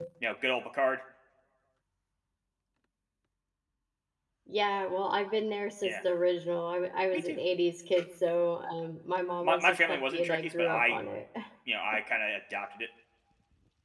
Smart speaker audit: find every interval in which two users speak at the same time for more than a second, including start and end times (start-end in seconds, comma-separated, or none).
9.4-11.0